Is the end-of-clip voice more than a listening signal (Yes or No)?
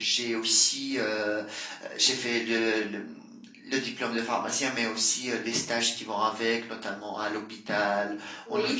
No